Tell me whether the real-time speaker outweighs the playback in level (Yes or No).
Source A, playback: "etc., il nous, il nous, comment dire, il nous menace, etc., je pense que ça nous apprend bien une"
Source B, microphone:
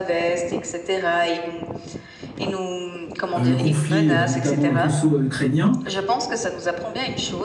Yes